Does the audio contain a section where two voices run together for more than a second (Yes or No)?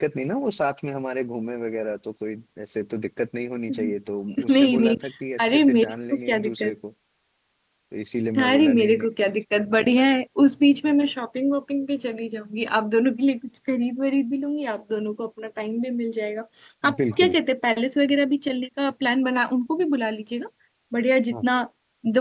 Yes